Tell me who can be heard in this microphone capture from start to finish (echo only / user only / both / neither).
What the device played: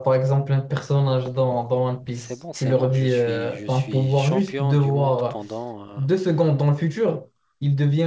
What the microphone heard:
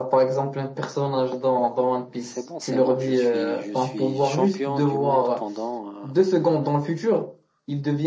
echo only